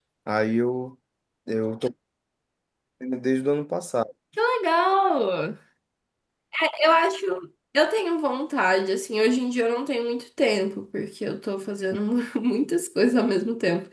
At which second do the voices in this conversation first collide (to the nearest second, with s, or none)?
none